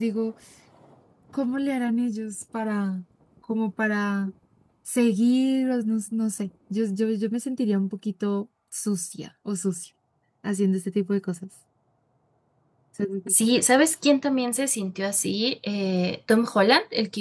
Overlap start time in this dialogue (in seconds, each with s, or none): none